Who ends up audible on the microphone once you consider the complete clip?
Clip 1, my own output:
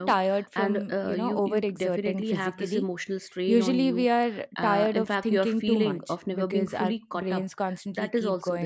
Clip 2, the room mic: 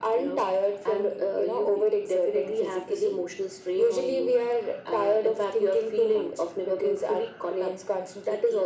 echo only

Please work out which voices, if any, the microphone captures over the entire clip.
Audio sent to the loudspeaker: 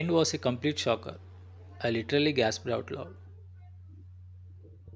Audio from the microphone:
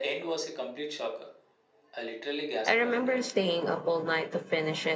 both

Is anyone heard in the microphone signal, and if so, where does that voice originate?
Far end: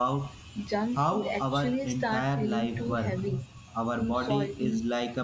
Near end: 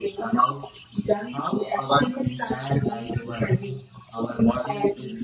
echo only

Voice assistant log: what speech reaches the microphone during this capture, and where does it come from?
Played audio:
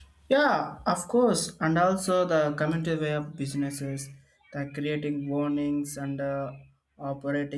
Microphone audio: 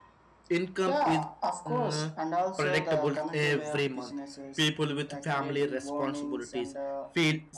both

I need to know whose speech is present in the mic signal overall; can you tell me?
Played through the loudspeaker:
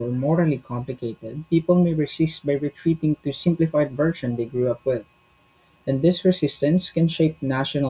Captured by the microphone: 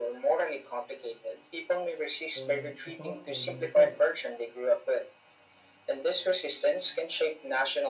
both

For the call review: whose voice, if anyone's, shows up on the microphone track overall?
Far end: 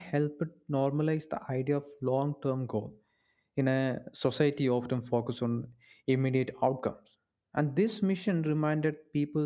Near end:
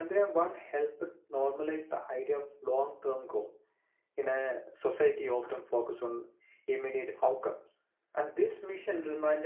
echo only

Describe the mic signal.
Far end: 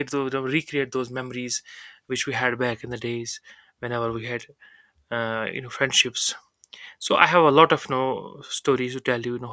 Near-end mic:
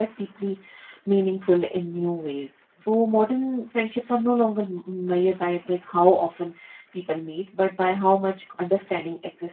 user only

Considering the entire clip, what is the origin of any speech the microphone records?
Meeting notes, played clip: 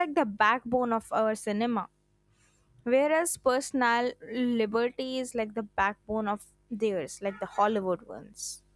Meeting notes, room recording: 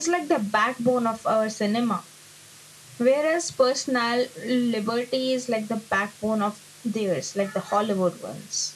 echo only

